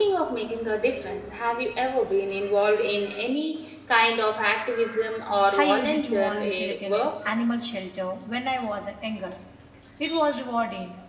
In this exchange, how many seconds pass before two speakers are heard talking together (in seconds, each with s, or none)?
5.5 s